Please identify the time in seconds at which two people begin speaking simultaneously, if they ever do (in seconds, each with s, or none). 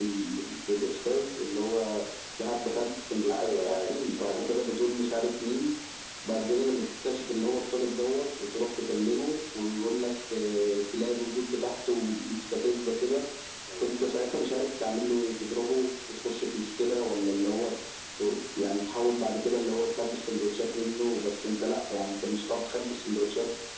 3.3 s